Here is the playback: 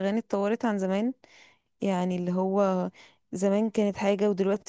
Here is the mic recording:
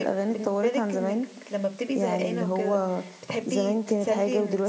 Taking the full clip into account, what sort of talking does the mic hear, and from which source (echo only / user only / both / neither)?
both